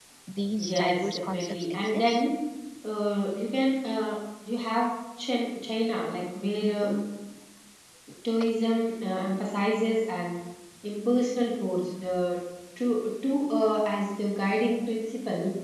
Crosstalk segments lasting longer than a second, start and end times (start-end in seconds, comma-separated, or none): 0.6-2.2